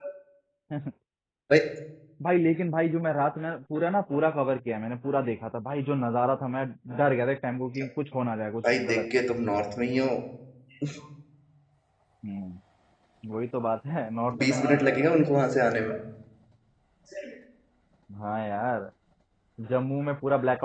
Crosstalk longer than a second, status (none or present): none